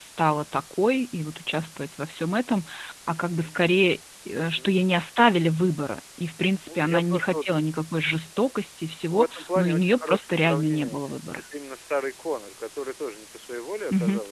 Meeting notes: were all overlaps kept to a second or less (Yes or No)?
No